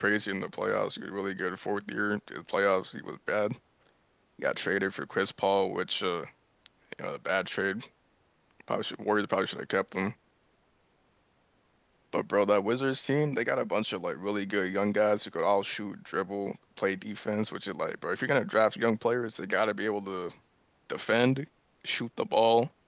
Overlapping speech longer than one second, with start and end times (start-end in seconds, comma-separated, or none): none